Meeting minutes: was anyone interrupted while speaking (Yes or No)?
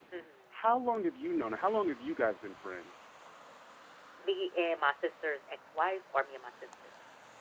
No